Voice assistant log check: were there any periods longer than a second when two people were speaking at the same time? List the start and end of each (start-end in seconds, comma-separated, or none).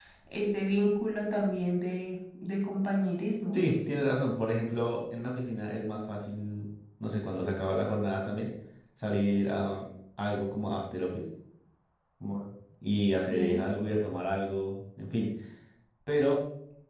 none